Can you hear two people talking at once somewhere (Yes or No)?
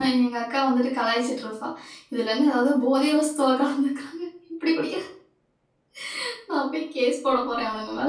No